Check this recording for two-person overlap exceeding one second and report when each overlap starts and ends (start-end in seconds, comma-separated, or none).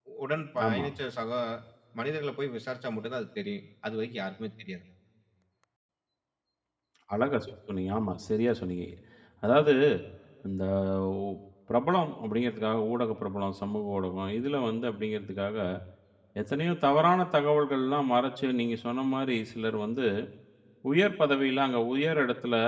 none